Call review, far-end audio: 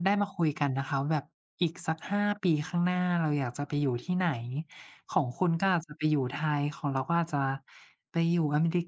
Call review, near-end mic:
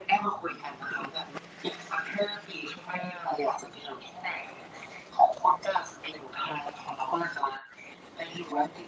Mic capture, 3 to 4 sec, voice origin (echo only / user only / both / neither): echo only